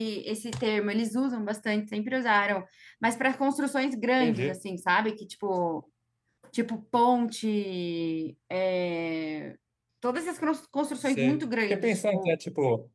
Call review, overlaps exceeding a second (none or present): present